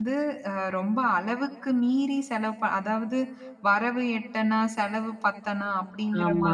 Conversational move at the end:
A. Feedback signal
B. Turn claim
A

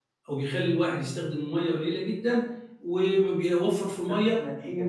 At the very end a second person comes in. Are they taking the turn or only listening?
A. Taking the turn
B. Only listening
B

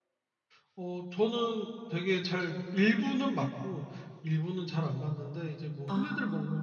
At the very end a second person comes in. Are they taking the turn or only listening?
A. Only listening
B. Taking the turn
A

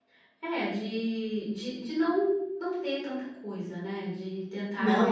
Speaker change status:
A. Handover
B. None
A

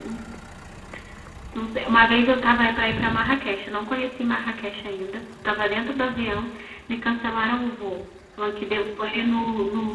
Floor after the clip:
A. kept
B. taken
A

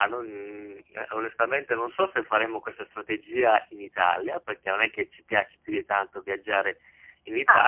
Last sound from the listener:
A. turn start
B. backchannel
B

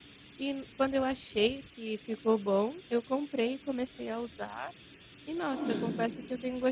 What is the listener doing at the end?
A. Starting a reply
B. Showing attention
B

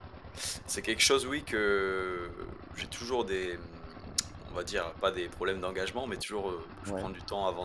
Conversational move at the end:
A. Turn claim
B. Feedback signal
B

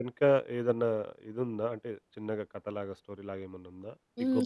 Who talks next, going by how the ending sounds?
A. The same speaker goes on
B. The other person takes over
B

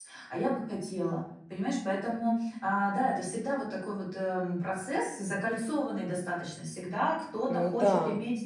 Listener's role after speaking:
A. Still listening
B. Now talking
A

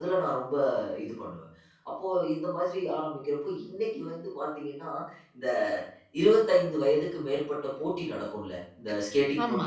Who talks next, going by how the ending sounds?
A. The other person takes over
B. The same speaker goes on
B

